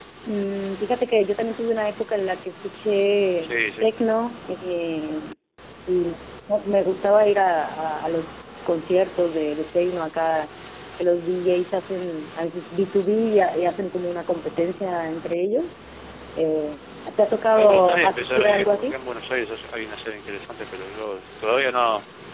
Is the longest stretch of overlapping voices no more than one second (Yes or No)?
No